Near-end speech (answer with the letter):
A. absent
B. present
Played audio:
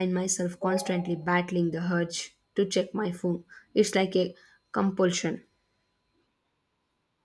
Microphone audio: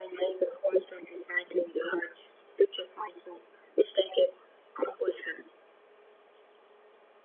A